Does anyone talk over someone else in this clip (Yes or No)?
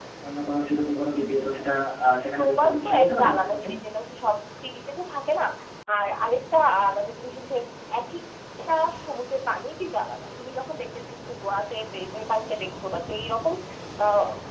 Yes